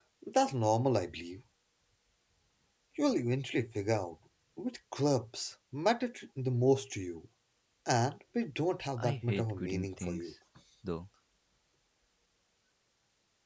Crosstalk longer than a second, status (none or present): present